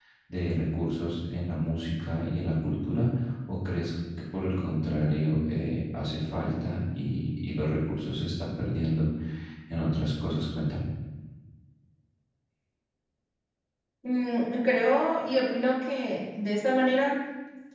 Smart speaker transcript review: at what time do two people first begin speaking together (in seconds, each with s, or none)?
none